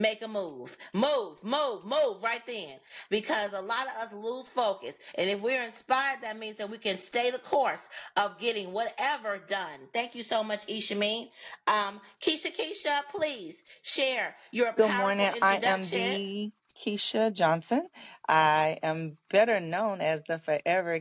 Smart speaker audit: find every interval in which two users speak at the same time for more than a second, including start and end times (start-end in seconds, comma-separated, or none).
14.8-16.1